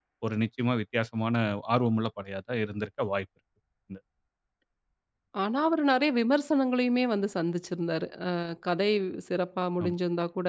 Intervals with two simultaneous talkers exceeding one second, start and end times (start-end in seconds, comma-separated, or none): none